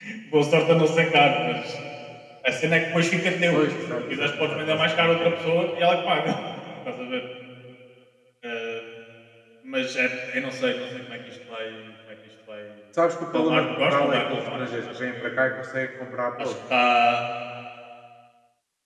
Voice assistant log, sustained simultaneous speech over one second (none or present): present